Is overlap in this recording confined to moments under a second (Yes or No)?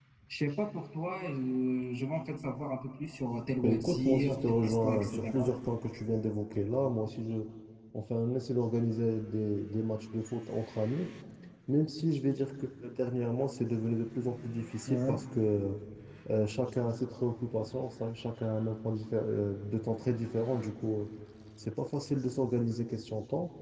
No